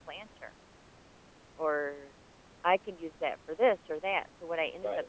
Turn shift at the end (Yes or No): Yes